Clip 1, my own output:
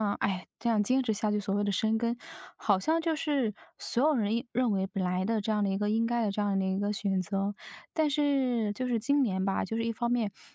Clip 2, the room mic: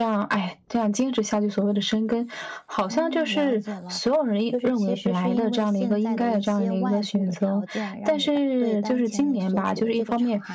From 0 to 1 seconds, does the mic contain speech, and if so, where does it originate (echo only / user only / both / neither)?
echo only